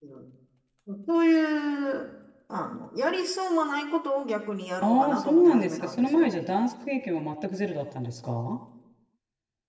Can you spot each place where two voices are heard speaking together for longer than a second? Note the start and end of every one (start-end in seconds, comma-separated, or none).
4.8-6.4